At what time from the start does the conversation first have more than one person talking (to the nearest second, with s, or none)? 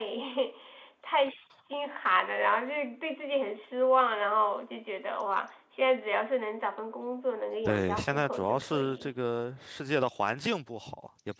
8 s